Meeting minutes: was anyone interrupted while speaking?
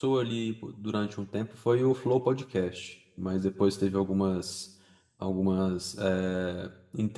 No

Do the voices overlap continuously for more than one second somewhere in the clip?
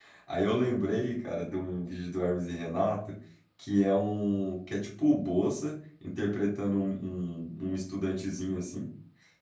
No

